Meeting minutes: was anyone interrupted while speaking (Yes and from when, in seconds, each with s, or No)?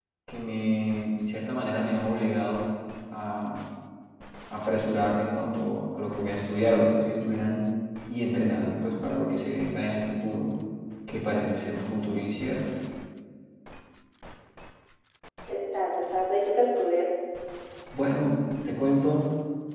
No